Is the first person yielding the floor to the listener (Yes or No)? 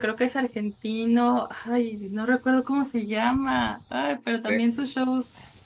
No